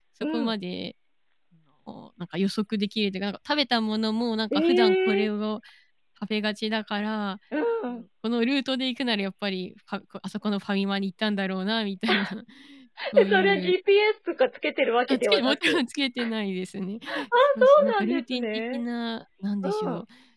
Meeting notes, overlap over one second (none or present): present